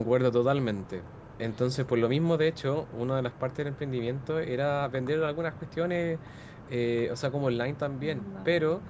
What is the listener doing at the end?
listening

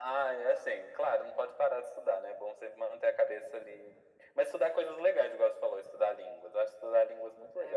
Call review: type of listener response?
taking over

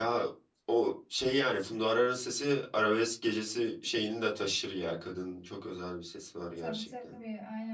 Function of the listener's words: taking over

